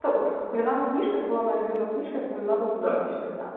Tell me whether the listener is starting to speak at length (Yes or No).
Yes